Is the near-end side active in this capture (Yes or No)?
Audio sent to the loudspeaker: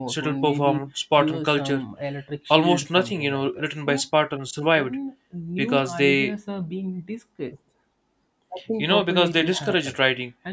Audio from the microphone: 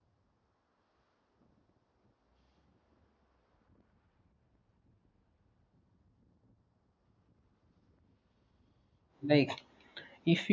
Yes